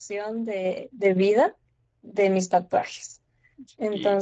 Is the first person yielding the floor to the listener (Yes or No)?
No